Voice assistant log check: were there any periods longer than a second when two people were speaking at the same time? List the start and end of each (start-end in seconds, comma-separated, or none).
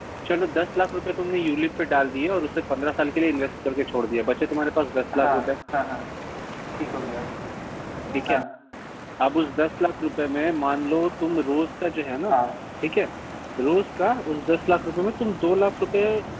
none